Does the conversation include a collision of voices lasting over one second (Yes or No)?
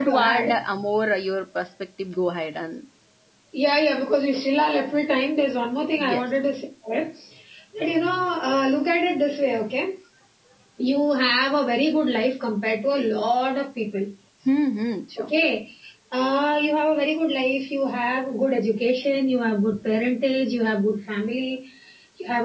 No